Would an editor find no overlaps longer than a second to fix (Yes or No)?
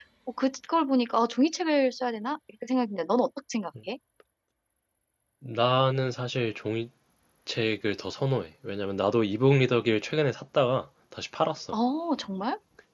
Yes